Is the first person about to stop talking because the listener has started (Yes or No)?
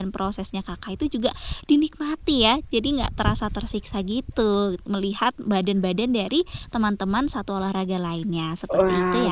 Yes